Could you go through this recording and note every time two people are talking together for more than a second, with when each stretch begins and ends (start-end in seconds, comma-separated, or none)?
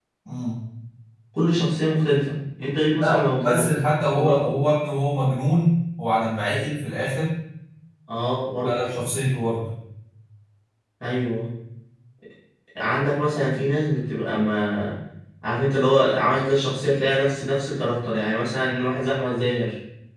3.0-4.5